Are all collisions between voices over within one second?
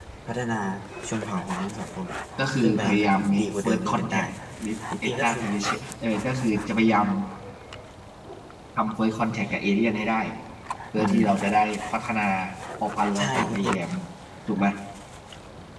No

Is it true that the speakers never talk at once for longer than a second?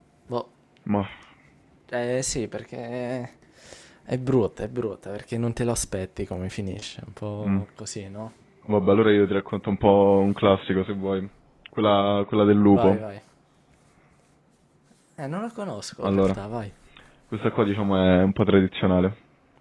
Yes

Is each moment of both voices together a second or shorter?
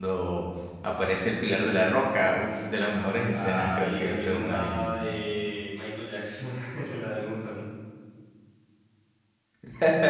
No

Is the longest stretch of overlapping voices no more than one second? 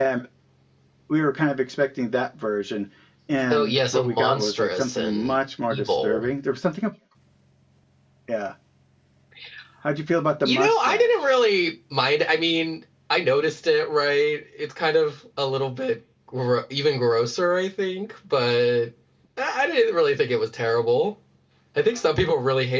No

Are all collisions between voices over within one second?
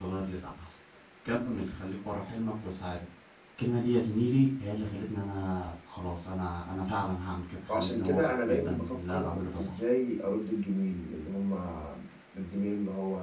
No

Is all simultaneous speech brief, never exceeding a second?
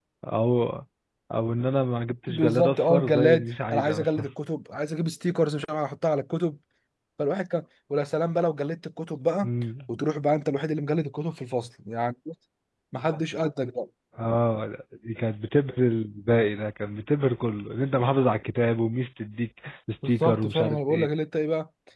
No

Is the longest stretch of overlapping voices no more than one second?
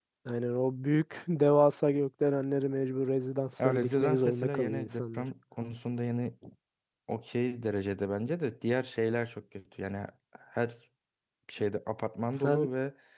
No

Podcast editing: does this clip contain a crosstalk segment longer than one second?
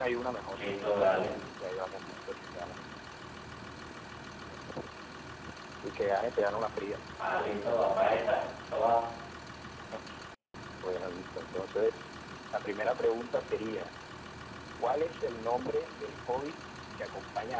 No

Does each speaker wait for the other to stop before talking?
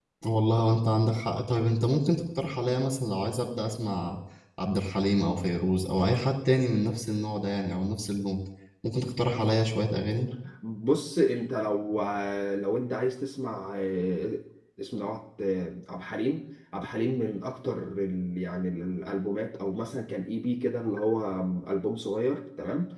Yes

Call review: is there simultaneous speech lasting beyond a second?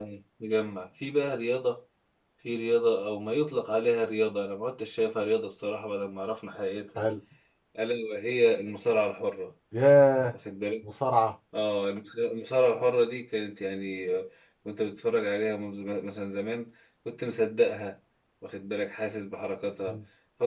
No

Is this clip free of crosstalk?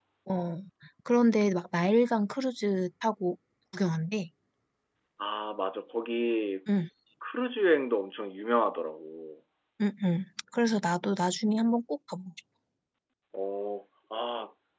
Yes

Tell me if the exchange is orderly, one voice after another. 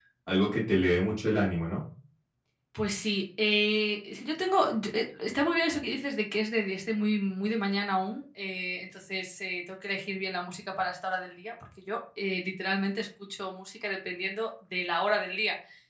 Yes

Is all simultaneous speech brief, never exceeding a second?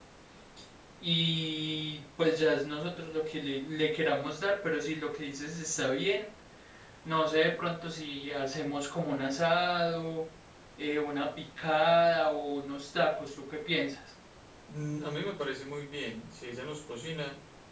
Yes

